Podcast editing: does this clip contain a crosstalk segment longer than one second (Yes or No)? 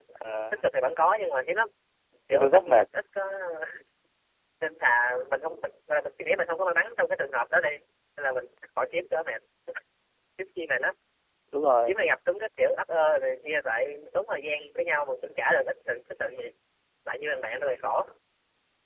No